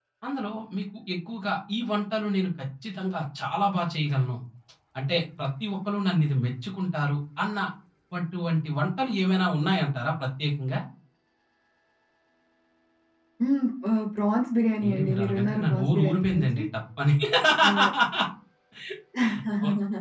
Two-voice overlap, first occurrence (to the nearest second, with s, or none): 15 s